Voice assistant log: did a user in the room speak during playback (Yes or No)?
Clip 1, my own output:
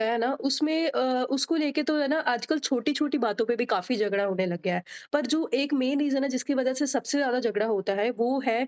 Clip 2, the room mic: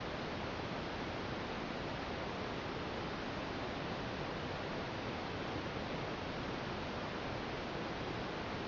No